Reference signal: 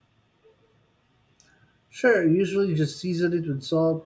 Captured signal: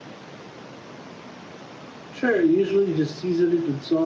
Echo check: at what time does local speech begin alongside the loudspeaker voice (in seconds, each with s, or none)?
none